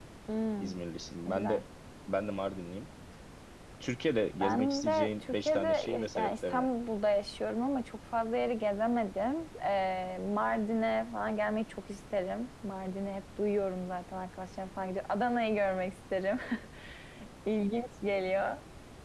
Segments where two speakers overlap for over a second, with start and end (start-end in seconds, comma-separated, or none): 4.4-6.7